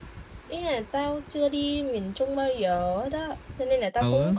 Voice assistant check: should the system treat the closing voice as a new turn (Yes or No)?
No